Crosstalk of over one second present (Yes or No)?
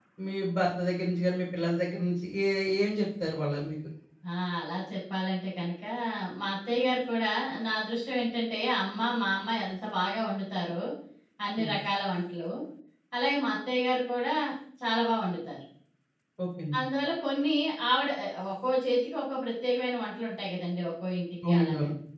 No